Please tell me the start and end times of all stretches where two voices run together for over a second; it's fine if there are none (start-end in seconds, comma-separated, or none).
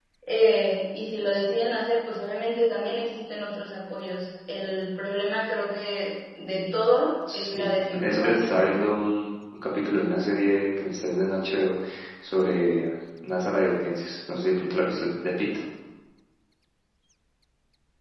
7.3-8.7